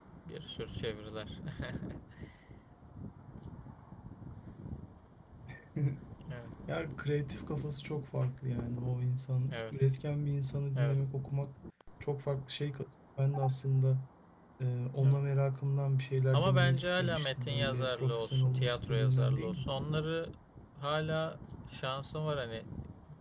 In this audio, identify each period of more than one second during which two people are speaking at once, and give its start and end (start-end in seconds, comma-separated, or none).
16.3-19.6